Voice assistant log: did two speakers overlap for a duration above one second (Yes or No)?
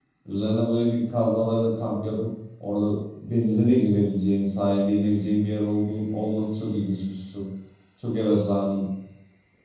No